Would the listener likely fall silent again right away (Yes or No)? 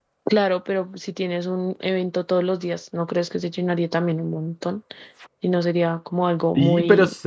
No